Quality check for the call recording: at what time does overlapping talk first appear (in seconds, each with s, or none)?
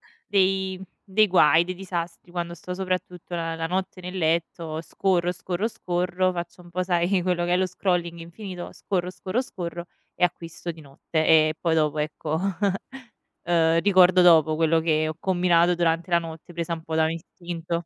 none